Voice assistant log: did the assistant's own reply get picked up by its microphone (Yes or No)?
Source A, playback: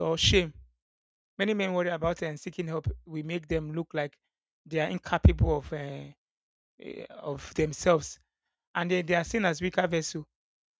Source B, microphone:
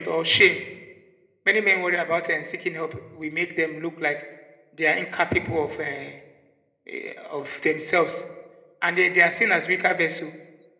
Yes